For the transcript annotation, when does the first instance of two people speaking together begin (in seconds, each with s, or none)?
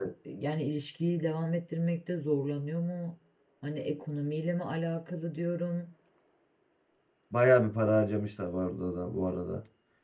none